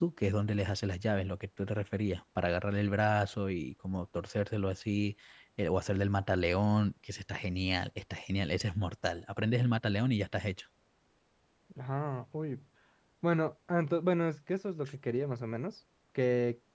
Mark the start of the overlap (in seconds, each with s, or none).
none